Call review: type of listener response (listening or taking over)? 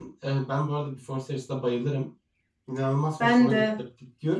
listening